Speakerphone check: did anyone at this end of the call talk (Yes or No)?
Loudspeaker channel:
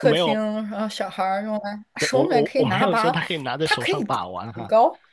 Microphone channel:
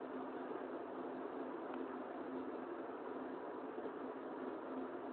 No